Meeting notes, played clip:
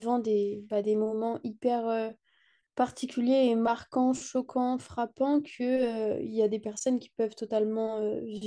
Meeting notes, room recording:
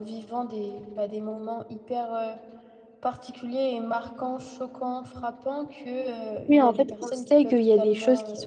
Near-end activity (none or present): present